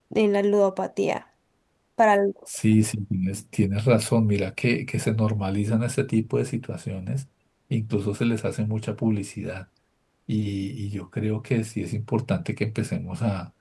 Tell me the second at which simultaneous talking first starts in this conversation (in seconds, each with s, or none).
none